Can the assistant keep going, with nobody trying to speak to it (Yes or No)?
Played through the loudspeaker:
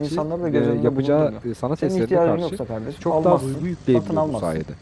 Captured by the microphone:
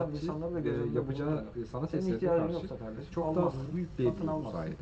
Yes